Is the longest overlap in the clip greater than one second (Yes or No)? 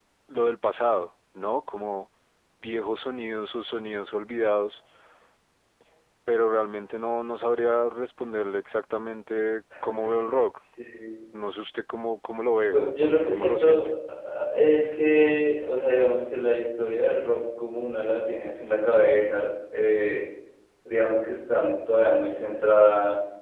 Yes